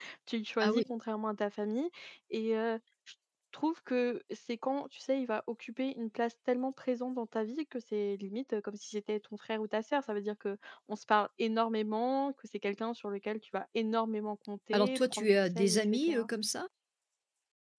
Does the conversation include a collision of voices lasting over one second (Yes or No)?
Yes